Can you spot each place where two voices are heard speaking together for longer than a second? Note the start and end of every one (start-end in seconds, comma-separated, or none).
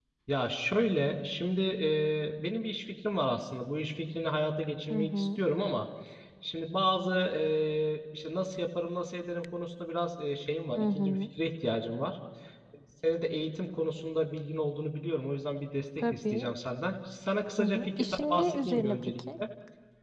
17.6-19.2